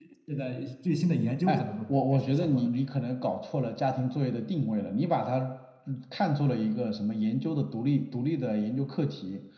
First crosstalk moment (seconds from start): 1.5 s

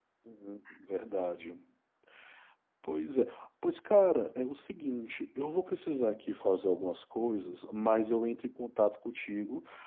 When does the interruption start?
none

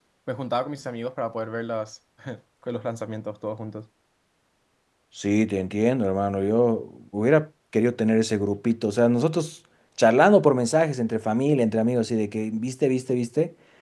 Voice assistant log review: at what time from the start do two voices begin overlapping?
none

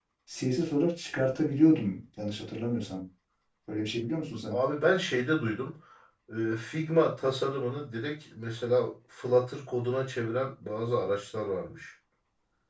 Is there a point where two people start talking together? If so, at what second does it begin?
none

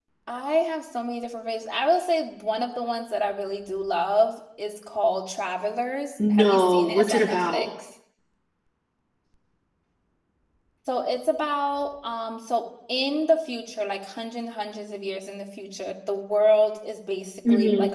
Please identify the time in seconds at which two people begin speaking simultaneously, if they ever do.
6.3 s

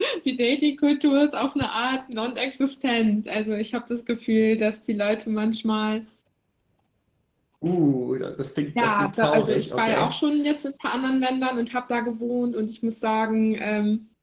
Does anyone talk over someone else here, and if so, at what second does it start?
8.8 s

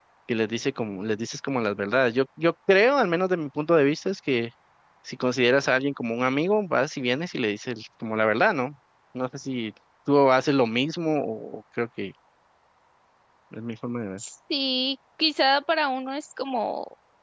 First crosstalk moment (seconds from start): none

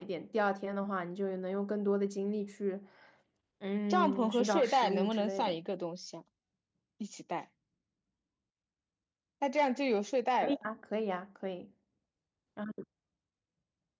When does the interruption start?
3.9 s

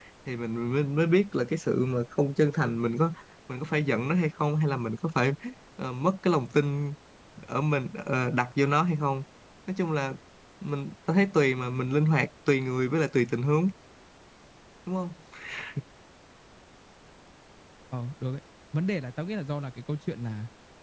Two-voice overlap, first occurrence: none

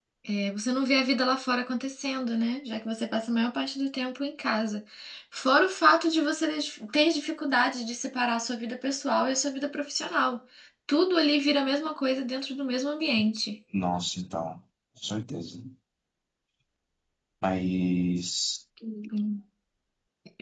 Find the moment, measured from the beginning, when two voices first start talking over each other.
none

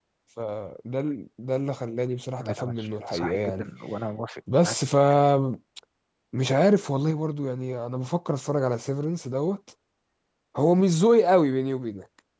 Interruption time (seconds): 2.4 s

